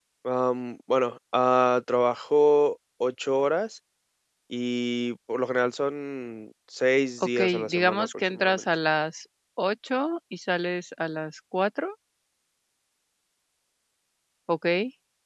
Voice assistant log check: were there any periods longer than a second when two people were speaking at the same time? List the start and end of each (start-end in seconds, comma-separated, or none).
7.4-8.6